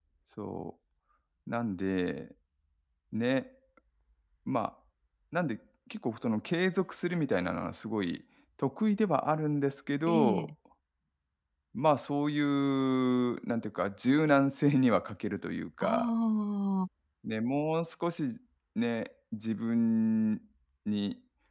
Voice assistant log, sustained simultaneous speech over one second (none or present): none